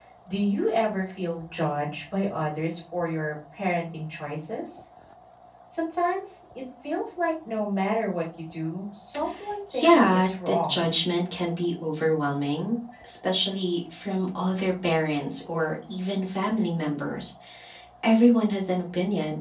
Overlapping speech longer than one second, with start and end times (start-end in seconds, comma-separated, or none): 9.7-10.9